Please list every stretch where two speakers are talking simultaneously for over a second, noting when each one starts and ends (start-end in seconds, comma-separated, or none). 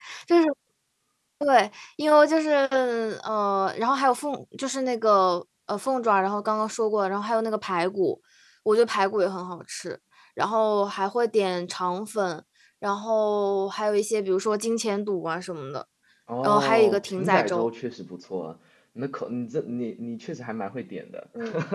16.4-17.7